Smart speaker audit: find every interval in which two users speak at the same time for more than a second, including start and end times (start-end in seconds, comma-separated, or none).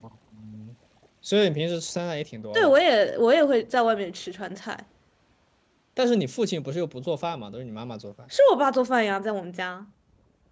none